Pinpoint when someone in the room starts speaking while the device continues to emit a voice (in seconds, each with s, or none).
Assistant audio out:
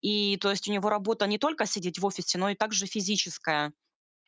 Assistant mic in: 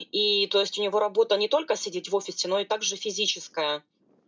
none